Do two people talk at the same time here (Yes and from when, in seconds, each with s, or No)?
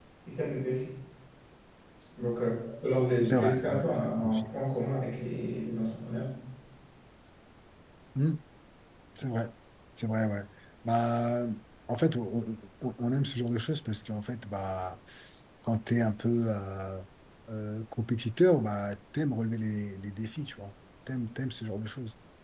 Yes, from 3.2 s